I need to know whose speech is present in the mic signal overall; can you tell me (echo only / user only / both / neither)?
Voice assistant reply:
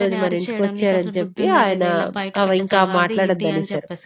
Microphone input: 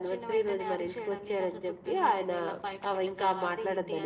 echo only